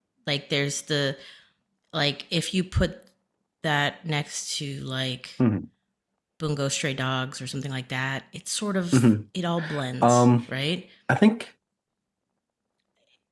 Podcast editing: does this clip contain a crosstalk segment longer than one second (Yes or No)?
No